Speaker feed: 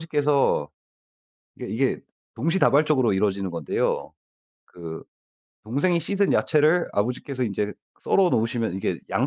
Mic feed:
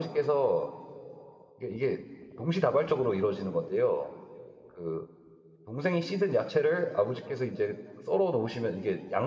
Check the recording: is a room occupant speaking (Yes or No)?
No